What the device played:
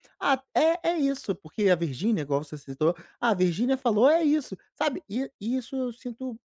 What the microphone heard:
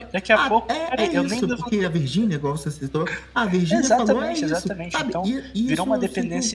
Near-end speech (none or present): present